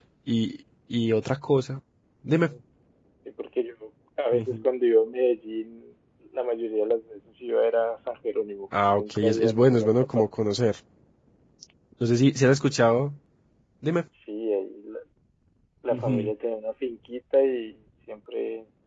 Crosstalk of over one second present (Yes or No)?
Yes